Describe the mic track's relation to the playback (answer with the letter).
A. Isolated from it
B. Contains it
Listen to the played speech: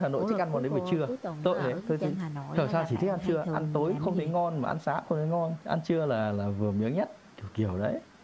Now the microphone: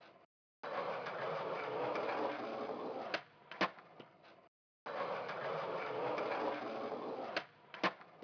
A